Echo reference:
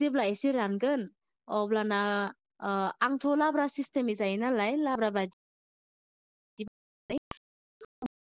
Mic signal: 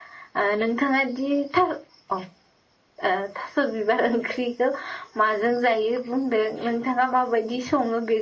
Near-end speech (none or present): present